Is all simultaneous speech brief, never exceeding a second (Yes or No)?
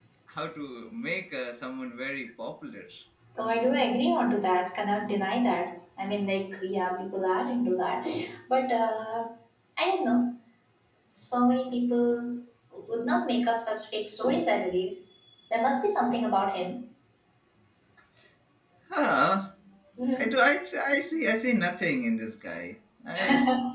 Yes